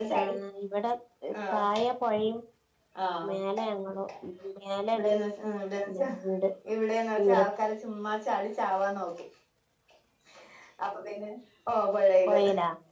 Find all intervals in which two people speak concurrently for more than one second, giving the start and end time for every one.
none

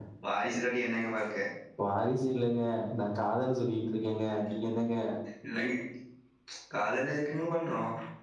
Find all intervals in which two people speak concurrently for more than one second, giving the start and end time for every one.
none

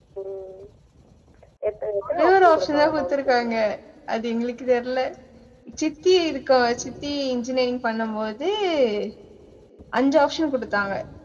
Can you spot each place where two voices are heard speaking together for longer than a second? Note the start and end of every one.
2.1-3.5

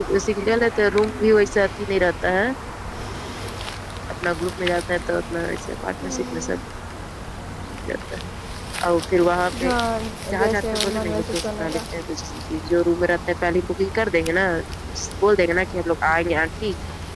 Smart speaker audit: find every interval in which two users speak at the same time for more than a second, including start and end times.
10.4-11.8

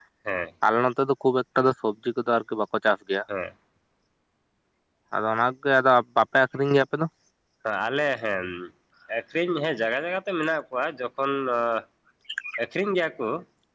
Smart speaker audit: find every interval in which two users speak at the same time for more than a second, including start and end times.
none

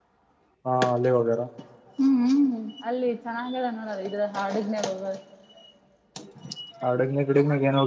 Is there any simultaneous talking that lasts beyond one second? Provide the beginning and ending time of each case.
none

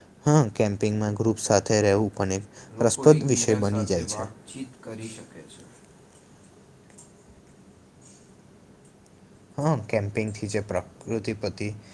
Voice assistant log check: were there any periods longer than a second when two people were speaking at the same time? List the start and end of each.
2.8-4.3

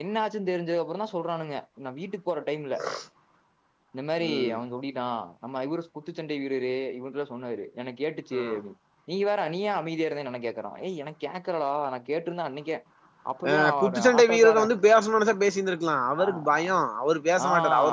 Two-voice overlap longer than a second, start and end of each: 13.5-14.7

